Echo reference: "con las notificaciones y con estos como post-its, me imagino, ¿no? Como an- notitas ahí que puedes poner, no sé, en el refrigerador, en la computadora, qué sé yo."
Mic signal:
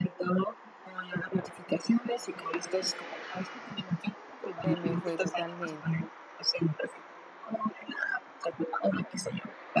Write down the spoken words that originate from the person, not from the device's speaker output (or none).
Se me fue totalmente.